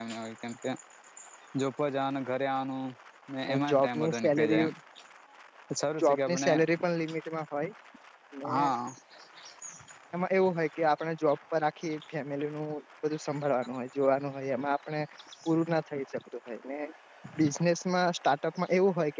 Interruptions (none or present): present